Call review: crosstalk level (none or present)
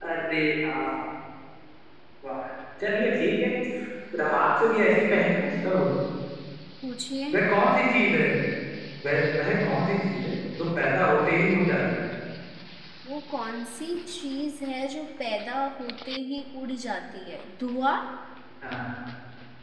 none